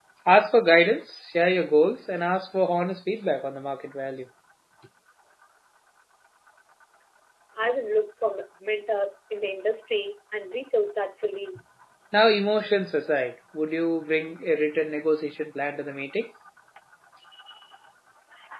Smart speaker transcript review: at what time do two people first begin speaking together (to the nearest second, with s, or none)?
none